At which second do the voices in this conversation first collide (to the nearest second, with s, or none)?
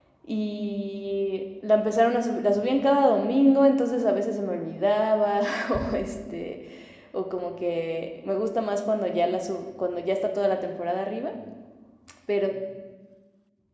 none